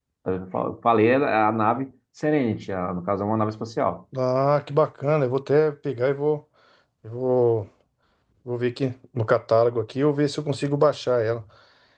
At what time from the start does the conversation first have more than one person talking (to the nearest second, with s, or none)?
none